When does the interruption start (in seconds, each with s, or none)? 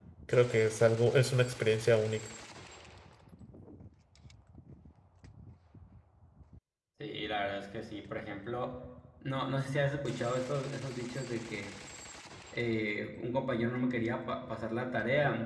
none